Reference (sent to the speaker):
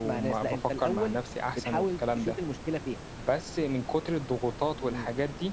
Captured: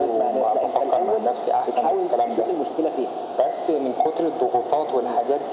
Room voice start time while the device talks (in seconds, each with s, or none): none